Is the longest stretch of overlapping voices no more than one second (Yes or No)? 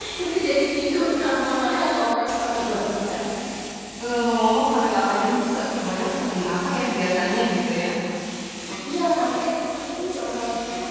Yes